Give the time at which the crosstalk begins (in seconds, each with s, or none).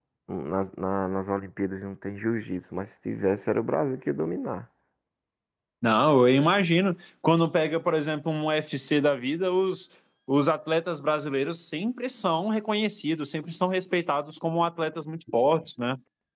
none